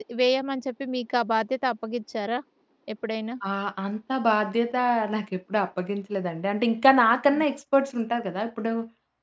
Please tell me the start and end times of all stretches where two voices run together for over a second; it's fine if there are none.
none

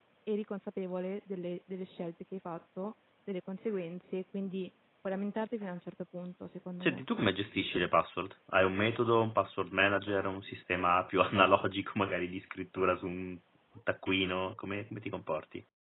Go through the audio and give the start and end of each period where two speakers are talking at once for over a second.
none

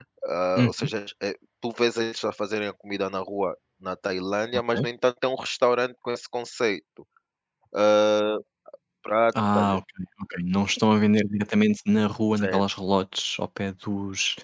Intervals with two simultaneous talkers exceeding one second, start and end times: none

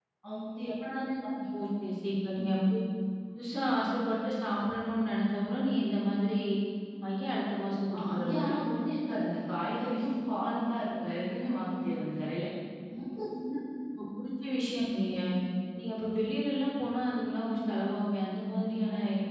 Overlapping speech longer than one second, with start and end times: none

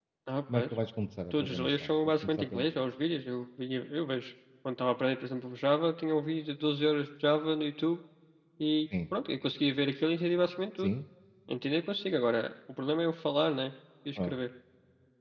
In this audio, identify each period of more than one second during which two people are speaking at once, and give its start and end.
1.3-2.6

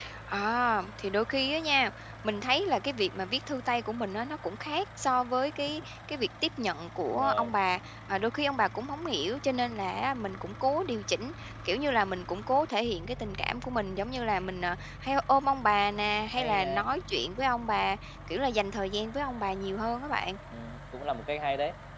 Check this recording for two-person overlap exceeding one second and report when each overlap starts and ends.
none

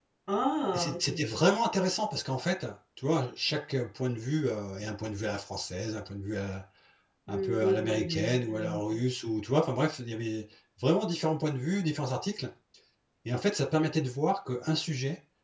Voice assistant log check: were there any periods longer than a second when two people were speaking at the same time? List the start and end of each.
7.3-9.0

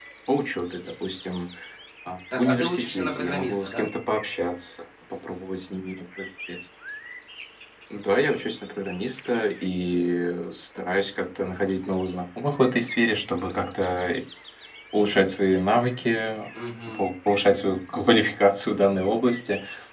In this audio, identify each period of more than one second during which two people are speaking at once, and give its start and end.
2.4-3.9

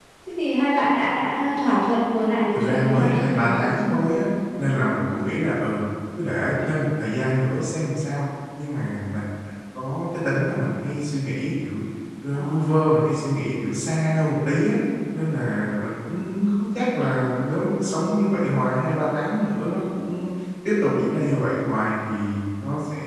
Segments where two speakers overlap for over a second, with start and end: 2.5-4.1

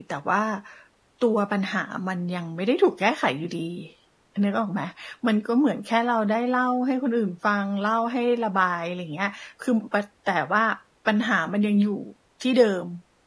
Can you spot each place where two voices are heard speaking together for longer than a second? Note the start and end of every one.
none

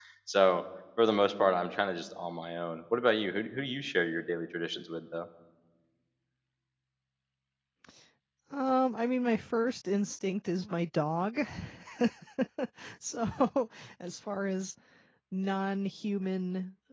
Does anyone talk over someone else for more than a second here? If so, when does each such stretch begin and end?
none

